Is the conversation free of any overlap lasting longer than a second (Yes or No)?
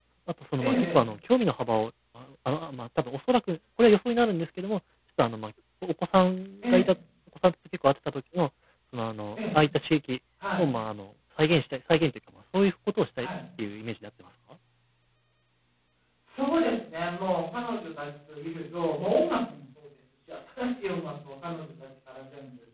Yes